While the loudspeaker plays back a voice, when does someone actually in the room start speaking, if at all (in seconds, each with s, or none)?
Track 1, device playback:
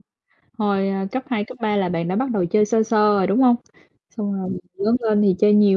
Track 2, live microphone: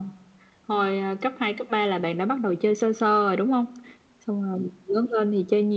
none